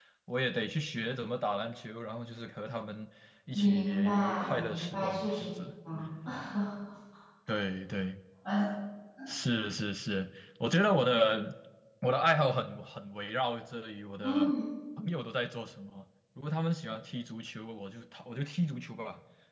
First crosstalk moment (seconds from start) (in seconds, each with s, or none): 3.5 s